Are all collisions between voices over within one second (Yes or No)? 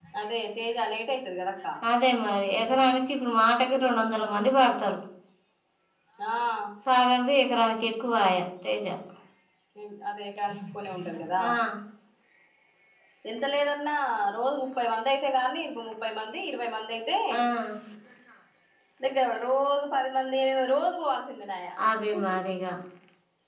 Yes